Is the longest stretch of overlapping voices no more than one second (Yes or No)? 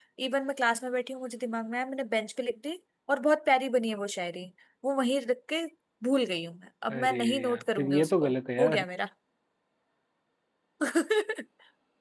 No